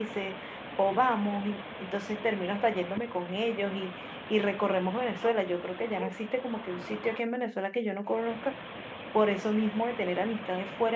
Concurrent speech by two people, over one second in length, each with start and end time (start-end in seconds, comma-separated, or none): none